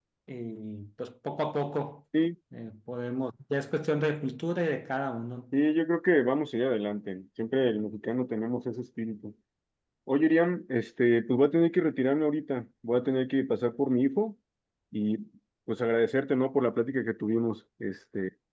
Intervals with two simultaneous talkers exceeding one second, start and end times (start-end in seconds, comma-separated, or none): none